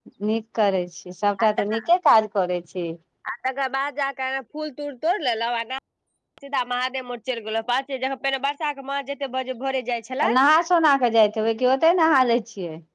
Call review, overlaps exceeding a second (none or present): none